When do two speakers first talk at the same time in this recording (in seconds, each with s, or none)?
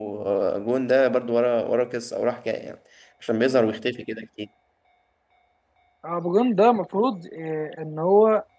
none